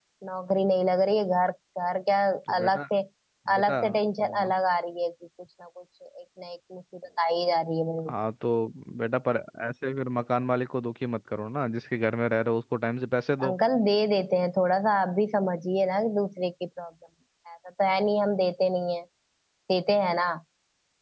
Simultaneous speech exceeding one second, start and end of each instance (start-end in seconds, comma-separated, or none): none